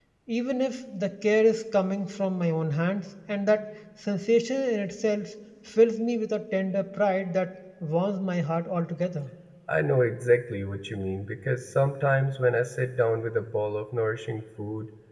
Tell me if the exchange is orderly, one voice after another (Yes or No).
Yes